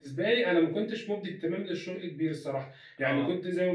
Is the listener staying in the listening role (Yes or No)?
Yes